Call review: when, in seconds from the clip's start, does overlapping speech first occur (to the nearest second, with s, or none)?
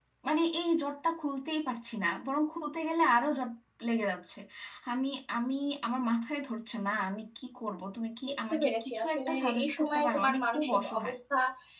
8 s